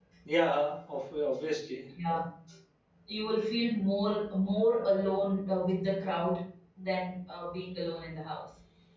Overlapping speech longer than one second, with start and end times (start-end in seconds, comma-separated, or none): none